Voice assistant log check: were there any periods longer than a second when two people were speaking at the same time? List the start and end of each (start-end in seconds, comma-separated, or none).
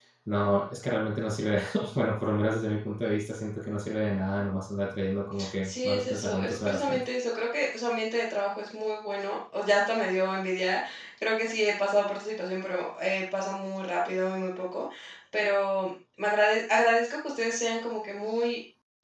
5.6-7.0